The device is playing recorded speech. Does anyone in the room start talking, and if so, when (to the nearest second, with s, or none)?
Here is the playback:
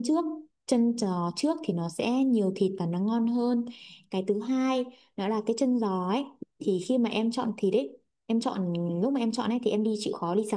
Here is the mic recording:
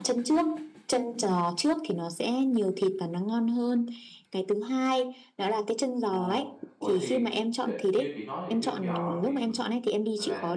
6 s